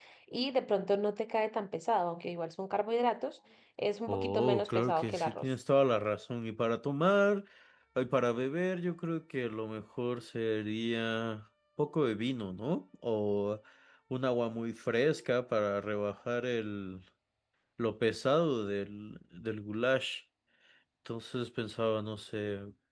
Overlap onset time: 4.1 s

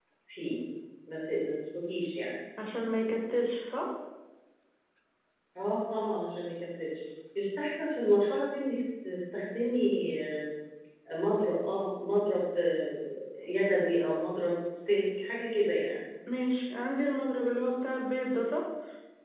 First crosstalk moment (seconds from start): none

